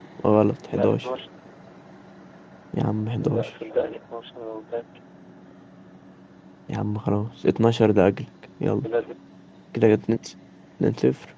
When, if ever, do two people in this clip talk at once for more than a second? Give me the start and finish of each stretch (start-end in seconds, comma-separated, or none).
none